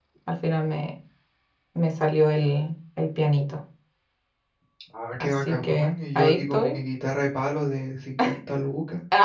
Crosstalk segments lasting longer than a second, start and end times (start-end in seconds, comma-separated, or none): 5.2-6.8